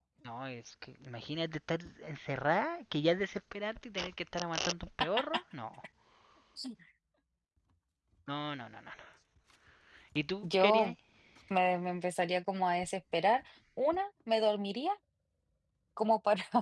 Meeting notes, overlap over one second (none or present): none